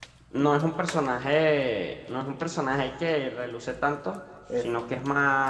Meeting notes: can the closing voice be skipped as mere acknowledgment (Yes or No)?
Yes